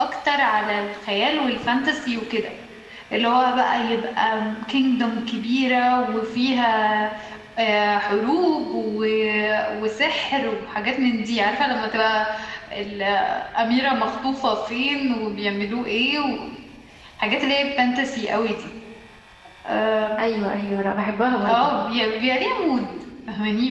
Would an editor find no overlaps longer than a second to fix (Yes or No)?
Yes